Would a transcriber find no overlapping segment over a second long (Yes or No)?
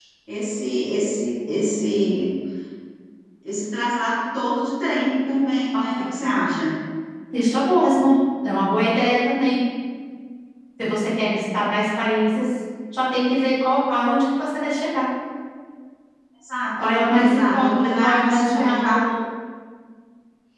No